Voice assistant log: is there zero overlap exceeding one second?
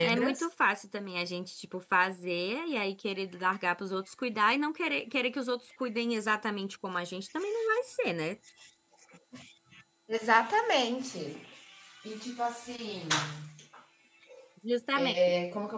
Yes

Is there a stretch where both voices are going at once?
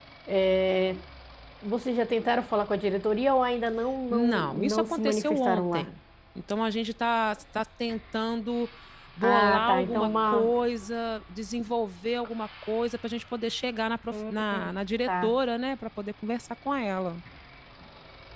Yes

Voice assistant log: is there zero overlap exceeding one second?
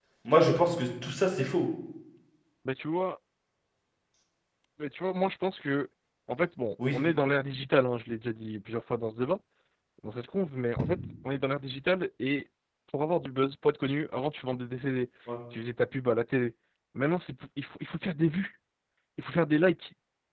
Yes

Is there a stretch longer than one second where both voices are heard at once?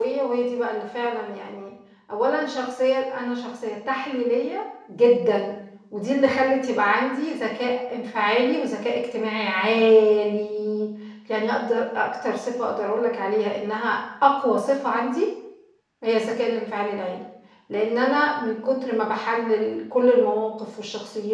No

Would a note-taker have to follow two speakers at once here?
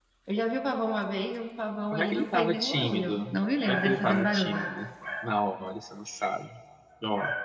Yes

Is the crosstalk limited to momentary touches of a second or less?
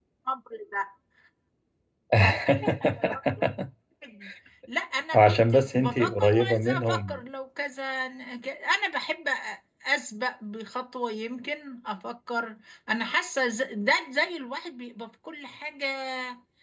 No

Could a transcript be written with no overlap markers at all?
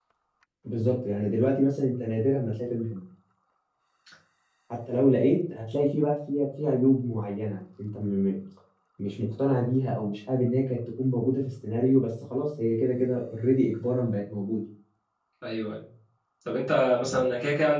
Yes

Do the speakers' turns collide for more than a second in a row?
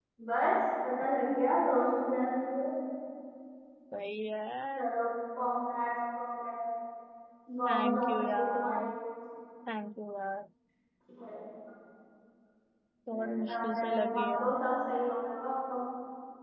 Yes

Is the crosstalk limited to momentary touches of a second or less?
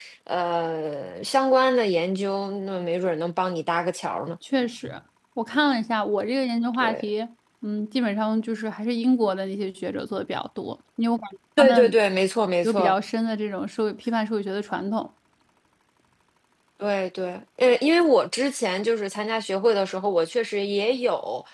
Yes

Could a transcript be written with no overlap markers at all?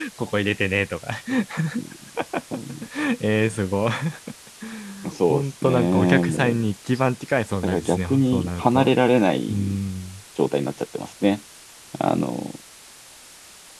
No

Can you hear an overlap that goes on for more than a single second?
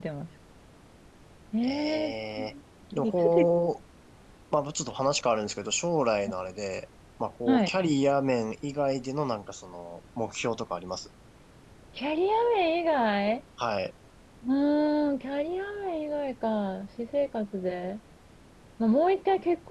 No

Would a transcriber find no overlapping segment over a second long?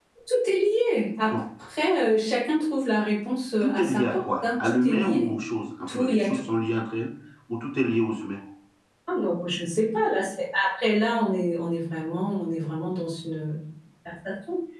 No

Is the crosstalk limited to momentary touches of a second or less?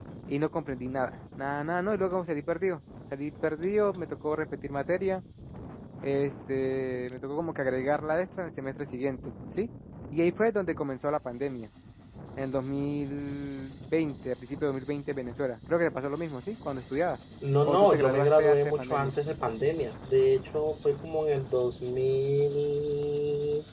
No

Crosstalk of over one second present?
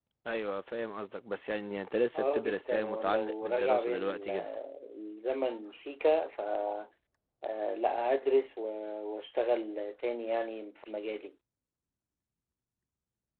Yes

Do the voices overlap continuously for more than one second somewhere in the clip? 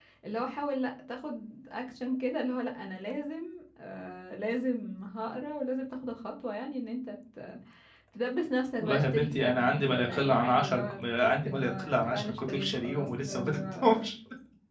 Yes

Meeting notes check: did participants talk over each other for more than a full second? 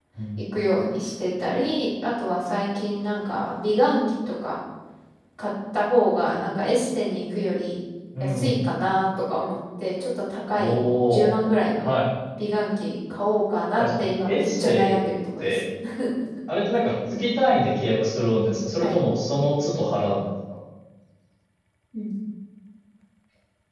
Yes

